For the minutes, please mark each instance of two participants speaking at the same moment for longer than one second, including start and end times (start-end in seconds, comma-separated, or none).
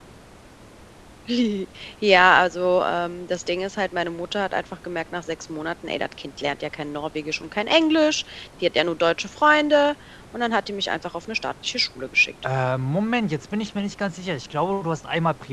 none